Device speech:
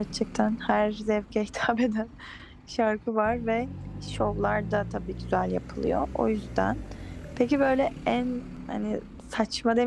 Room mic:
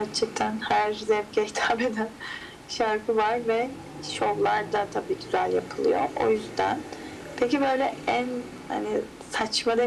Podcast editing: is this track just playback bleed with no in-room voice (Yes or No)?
Yes